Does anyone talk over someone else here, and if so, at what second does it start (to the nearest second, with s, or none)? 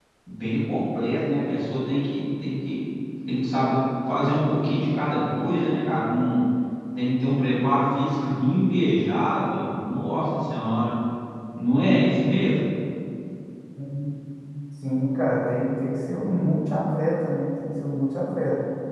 none